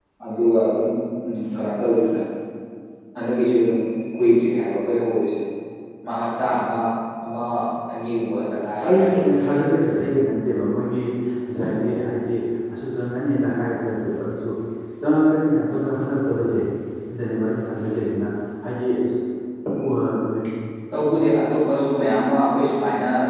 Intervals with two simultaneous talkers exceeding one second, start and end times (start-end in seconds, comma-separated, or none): none